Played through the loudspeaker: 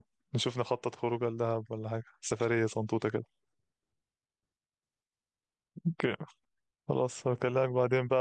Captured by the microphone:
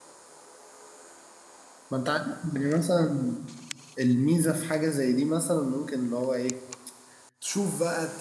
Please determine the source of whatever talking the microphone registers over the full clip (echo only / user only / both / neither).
user only